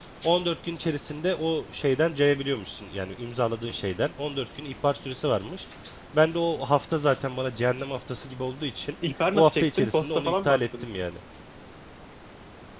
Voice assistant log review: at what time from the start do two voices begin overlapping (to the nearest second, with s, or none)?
9 s